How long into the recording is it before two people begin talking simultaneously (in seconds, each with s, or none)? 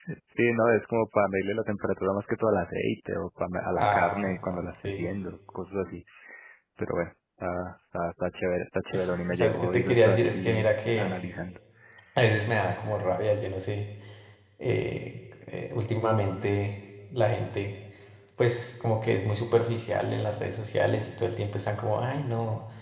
3.8 s